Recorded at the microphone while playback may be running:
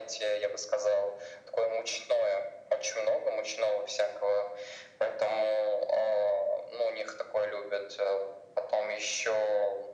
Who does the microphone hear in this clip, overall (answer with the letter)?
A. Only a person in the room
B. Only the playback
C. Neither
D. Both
B